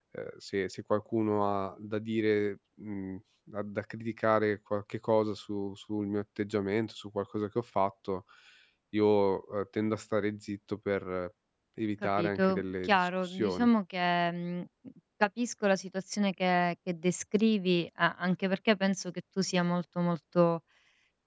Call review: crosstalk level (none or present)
present